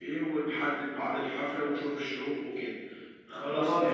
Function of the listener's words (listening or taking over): taking over